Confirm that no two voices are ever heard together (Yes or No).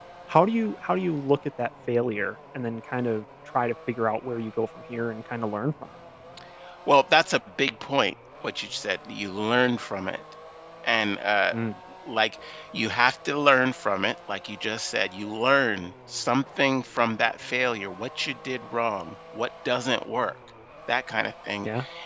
Yes